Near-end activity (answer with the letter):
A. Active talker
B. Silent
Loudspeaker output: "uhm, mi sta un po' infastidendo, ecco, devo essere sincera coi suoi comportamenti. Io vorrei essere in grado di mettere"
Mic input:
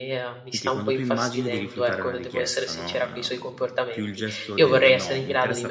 A